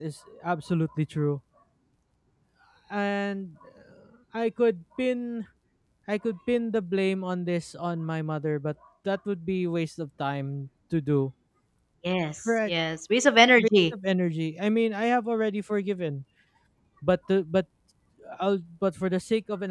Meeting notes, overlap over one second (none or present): none